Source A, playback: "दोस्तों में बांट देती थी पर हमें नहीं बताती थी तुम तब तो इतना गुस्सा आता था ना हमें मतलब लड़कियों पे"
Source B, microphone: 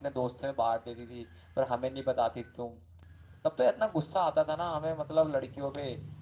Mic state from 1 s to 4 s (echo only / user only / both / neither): echo only